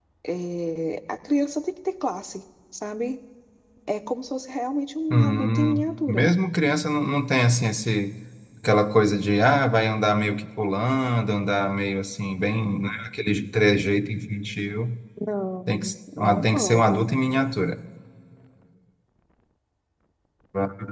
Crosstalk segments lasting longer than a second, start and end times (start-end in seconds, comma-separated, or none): 5.1-6.3, 15.7-17.1